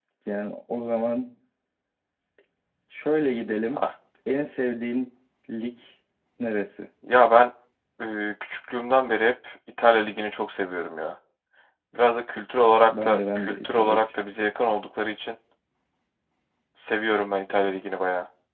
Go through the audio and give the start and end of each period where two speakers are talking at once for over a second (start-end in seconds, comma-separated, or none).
12.8-14.1